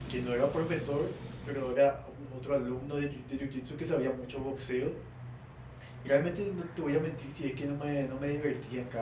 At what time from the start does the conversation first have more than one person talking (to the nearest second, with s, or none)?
none